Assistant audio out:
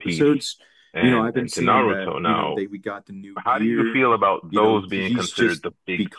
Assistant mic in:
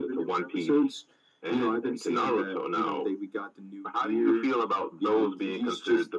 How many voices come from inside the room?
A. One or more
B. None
B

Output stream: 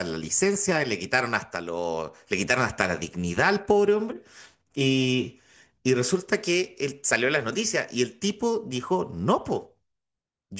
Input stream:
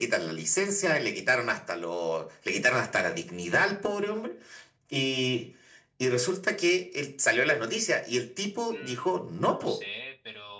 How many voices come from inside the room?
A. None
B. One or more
B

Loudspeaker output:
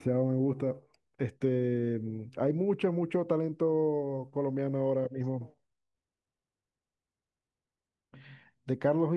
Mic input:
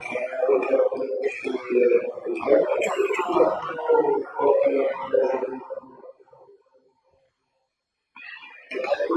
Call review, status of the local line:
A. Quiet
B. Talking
A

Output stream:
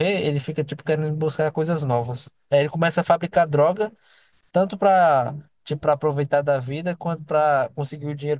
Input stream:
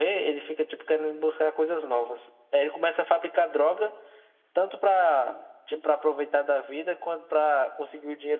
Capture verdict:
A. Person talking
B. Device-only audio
B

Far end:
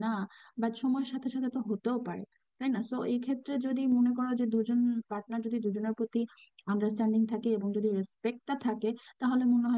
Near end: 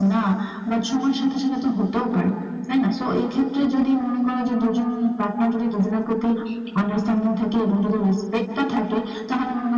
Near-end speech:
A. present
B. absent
B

